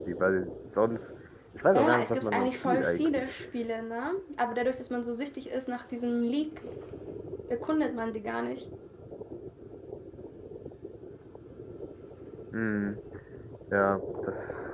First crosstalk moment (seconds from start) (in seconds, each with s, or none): 1.8 s